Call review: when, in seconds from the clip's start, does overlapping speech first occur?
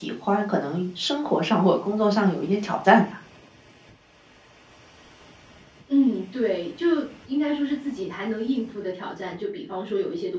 none

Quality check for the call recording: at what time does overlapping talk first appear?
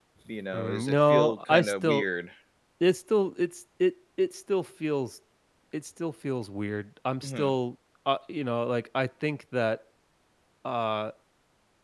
1 s

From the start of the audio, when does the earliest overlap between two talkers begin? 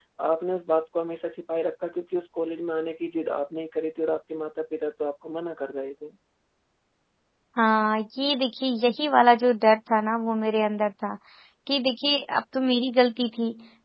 none

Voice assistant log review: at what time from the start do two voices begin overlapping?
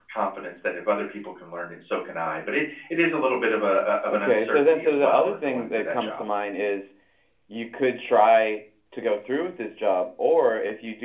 4 s

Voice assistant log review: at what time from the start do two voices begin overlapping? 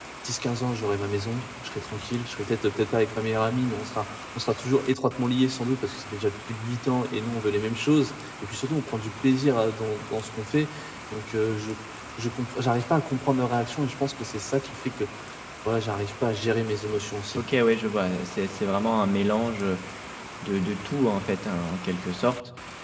none

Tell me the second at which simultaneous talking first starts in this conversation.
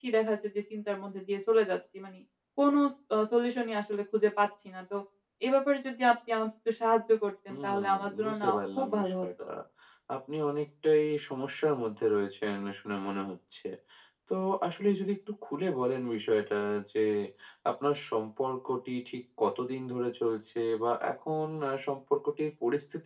7 s

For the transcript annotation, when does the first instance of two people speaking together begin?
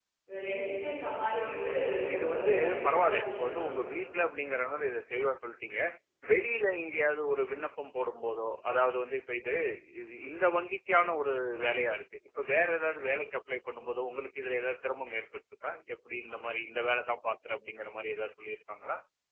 2 s

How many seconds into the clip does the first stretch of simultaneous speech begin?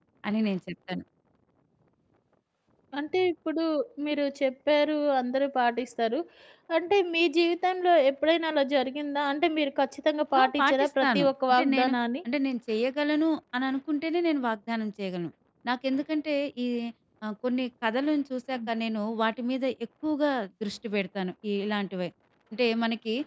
10 s

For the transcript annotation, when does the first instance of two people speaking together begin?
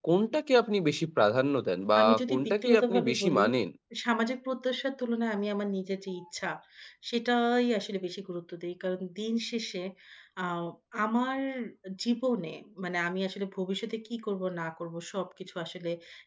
2 s

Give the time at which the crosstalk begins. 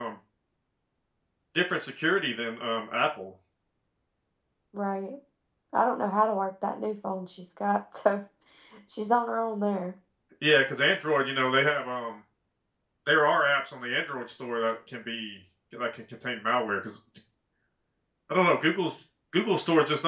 none

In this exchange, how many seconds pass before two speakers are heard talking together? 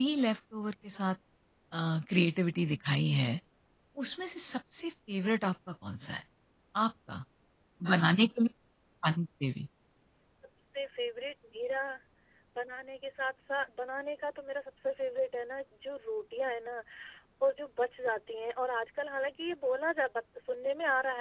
none

